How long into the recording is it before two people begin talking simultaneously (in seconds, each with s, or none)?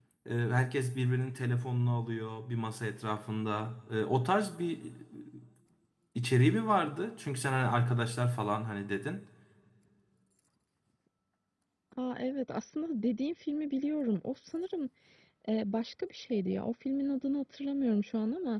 none